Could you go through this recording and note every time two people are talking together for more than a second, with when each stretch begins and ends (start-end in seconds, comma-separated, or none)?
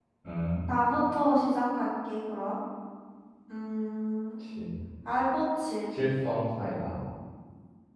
none